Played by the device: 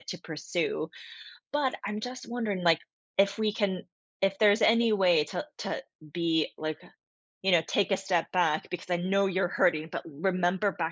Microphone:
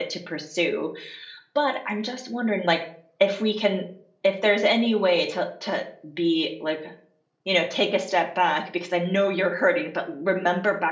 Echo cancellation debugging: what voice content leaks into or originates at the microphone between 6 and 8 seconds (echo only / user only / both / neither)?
echo only